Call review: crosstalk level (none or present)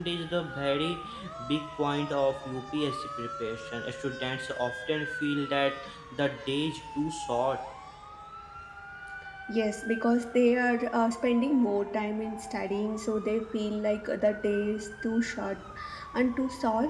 none